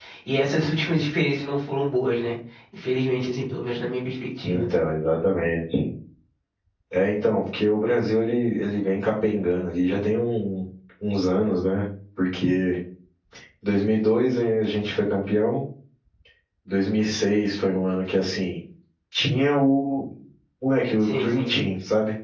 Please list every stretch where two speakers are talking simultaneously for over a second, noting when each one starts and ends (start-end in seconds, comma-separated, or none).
none